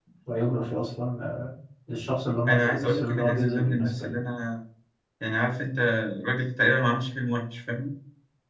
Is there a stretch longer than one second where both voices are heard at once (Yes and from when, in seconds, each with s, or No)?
Yes, from 2.5 s